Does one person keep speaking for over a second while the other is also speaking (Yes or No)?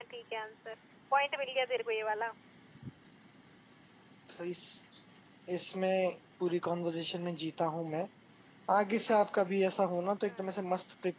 No